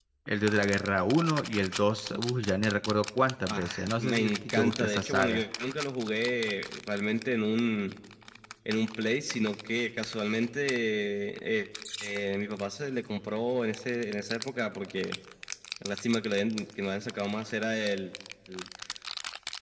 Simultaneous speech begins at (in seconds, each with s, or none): 3.5 s